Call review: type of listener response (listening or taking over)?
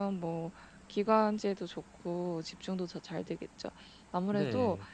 listening